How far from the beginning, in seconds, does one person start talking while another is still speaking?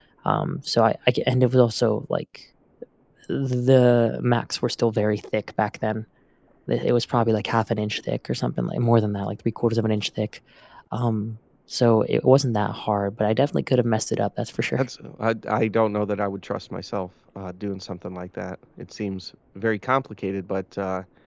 none

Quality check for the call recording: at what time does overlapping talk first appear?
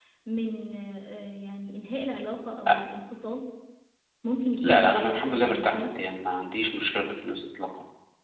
5 s

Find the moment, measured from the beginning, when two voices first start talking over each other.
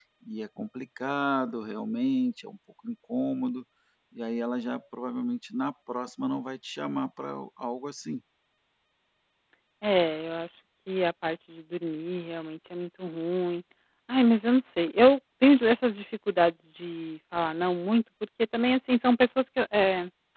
none

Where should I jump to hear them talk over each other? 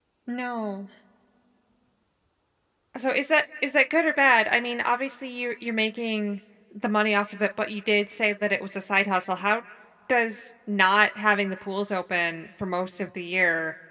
none

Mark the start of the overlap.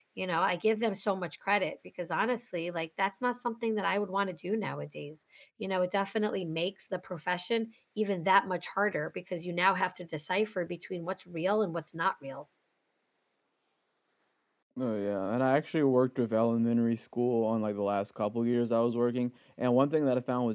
none

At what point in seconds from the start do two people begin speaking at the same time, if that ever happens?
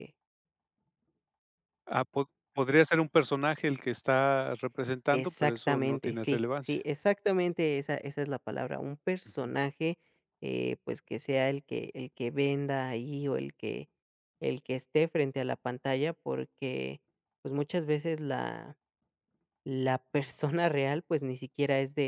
5 s

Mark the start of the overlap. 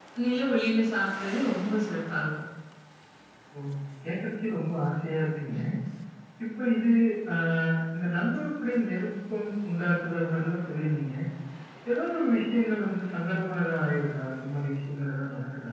none

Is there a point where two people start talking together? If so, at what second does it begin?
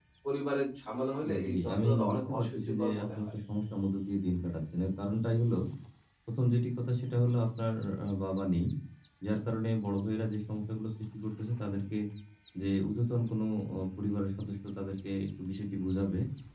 1 s

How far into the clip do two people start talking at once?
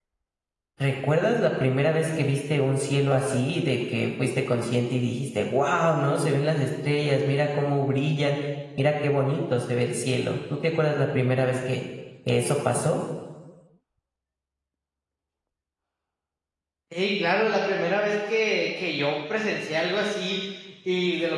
none

